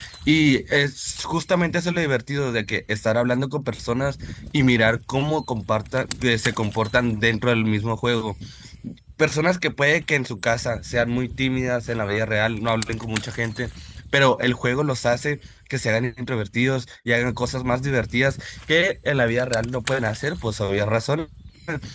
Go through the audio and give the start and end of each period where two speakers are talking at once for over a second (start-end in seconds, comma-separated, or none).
none